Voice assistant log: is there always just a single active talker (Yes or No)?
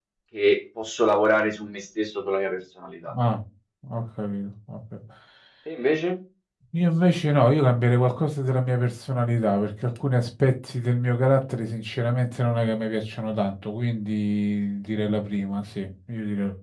Yes